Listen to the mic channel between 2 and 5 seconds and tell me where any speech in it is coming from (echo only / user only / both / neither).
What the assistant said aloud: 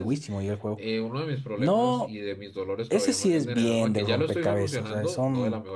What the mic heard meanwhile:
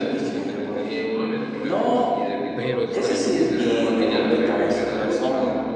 both